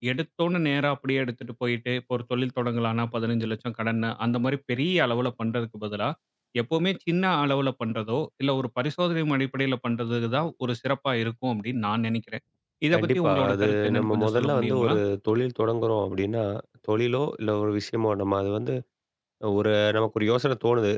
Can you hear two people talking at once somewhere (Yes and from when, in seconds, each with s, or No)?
Yes, from 12.9 s